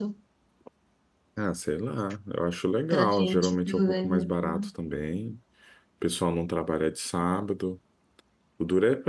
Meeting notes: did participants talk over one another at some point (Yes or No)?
Yes